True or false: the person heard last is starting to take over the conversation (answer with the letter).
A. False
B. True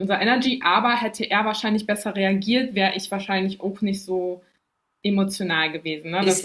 B